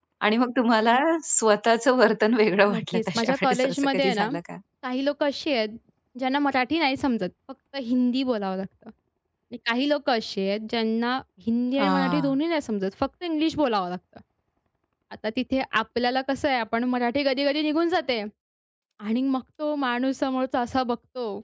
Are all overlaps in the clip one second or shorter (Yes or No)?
No